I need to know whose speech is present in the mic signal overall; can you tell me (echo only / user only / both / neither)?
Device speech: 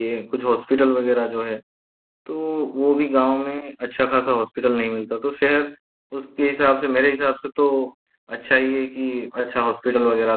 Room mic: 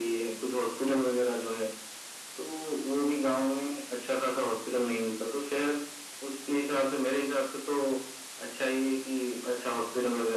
echo only